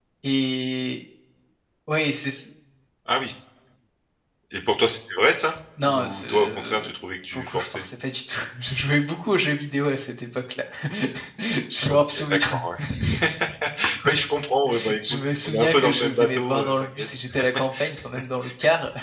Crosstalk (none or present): present